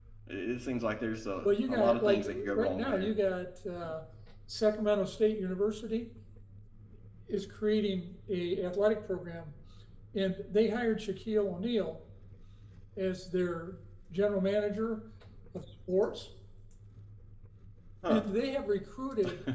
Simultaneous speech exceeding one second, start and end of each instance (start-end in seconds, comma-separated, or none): 1.4-3.1